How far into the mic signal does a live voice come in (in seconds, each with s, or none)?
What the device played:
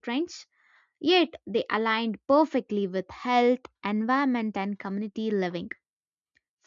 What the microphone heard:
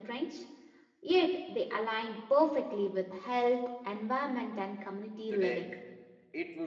5.3 s